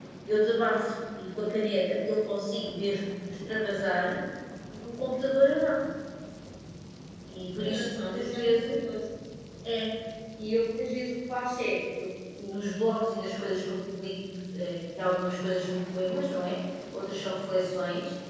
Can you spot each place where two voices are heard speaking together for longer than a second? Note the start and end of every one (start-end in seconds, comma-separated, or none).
7.5-8.8